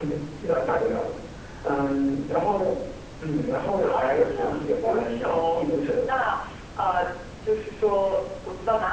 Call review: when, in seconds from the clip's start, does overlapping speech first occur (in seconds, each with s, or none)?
3.8 s